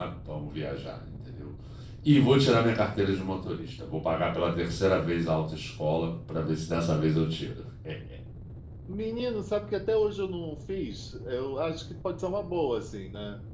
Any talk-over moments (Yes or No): No